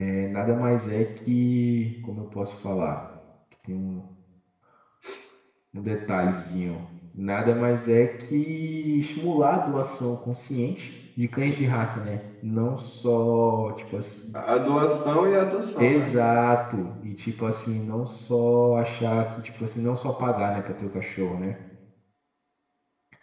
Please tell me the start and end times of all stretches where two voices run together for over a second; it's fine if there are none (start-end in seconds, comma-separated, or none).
none